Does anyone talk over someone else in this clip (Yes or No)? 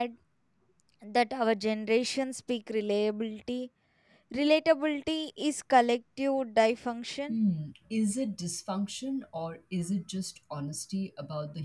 No